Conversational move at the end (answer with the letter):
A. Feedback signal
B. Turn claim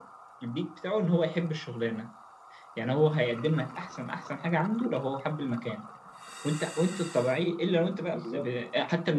A